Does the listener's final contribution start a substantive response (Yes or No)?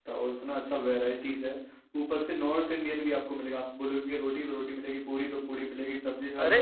No